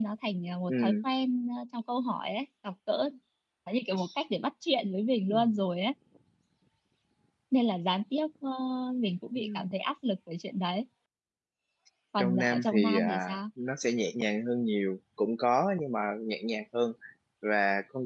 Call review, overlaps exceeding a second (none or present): present